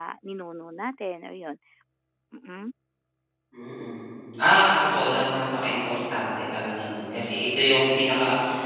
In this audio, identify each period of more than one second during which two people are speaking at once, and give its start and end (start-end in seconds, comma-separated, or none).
none